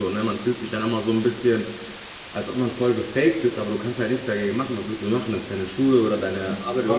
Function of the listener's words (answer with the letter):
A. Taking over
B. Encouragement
A